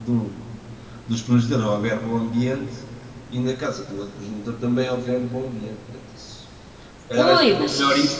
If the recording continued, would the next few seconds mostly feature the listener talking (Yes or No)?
No